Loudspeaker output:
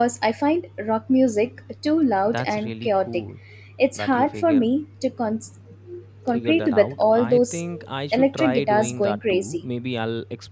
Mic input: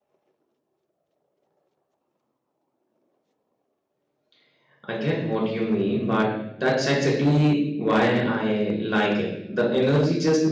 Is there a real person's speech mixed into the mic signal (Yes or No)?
Yes